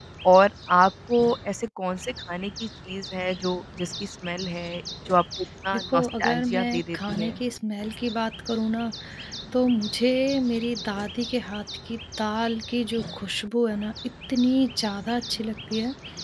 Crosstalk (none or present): present